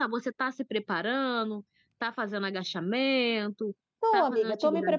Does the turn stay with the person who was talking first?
No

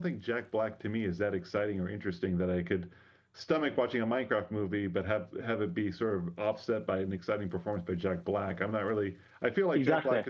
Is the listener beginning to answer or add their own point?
No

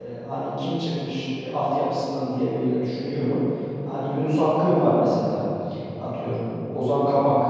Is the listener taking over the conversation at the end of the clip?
No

